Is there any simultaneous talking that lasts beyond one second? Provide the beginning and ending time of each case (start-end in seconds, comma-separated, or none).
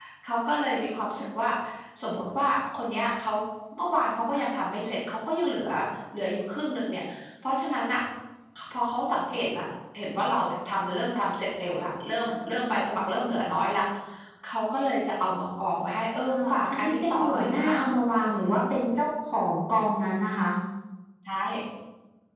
16.2-17.7